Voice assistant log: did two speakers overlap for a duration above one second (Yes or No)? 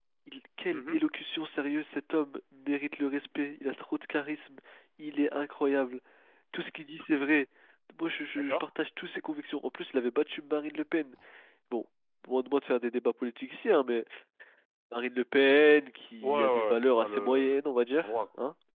Yes